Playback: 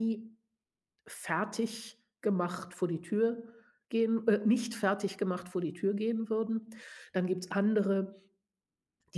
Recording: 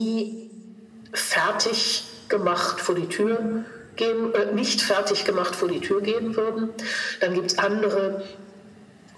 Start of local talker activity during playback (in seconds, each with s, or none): 3.2 s